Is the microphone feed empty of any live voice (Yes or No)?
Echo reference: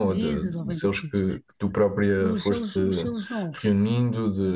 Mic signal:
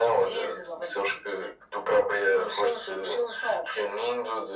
Yes